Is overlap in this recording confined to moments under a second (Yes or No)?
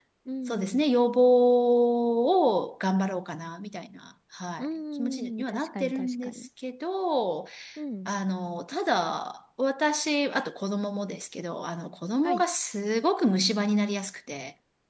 No